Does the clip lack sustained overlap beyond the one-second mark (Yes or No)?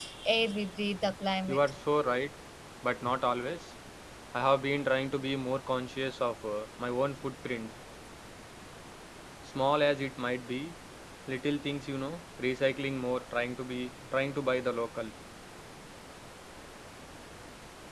Yes